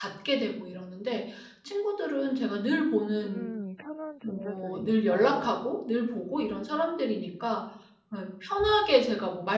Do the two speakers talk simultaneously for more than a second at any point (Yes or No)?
Yes